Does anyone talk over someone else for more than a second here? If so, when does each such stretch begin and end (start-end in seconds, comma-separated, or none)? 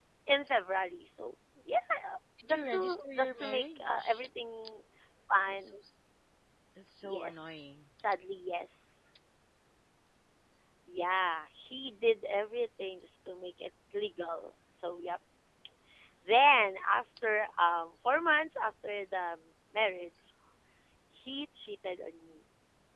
2.5-4.2